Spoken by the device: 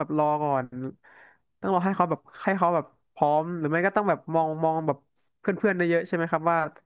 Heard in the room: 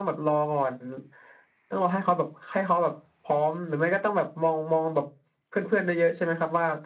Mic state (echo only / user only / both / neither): echo only